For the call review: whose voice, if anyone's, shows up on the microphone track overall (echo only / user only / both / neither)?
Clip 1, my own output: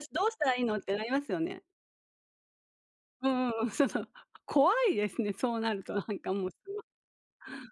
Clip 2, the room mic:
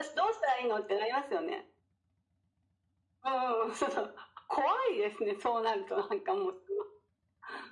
echo only